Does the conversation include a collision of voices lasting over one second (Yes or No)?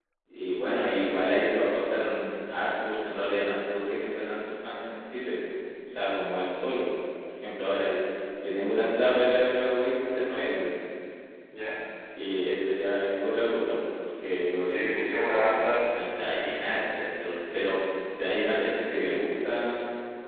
Yes